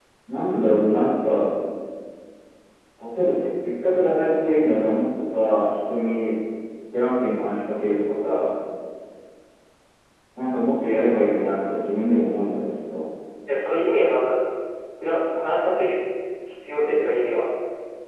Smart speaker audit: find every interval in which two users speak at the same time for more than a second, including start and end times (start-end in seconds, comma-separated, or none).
none